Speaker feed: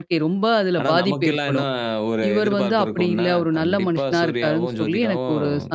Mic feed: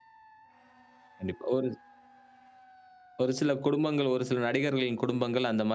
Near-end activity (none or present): present